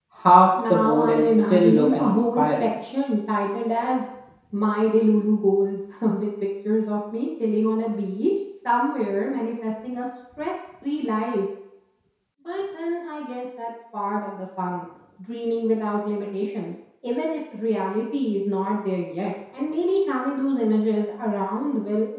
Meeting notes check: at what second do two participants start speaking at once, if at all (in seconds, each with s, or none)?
0.7 s